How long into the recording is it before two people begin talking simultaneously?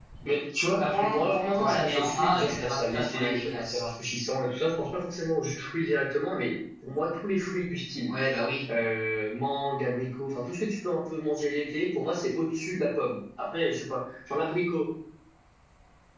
0.8 s

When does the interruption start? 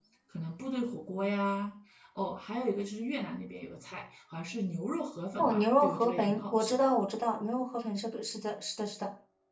5.4 s

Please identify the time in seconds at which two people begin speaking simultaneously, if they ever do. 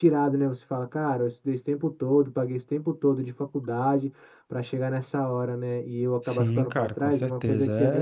6.2 s

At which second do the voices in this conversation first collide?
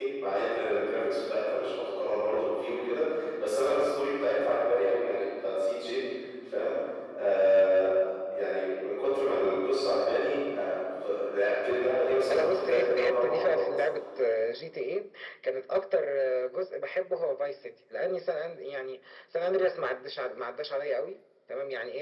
12.3 s

